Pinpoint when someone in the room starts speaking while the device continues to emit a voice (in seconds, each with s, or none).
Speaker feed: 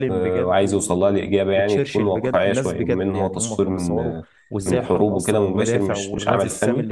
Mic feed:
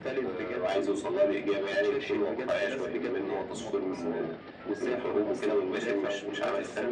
none